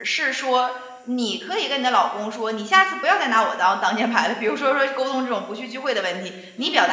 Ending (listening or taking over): listening